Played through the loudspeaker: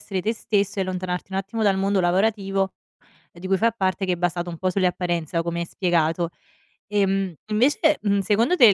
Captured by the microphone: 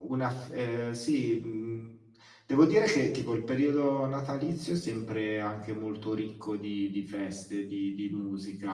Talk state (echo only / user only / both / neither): user only